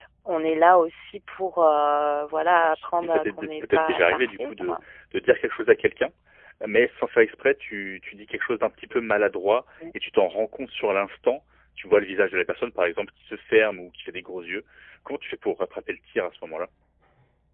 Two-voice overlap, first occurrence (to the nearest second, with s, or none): 3 s